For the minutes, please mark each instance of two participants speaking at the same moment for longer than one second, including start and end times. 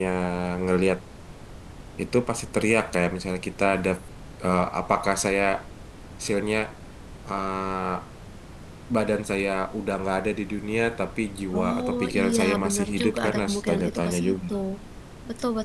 11.5-14.3

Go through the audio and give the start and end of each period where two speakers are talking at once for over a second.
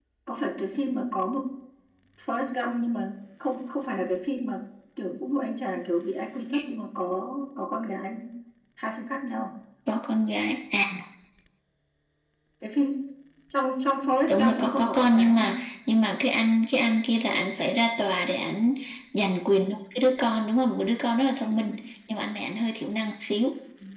14.3-15.6

